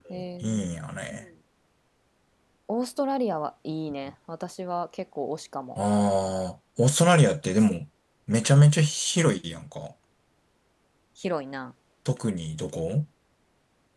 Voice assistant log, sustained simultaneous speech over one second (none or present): none